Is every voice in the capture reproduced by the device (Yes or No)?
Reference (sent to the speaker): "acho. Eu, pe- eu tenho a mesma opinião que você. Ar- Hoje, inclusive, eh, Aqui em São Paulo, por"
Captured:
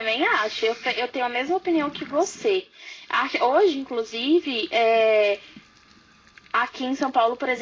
Yes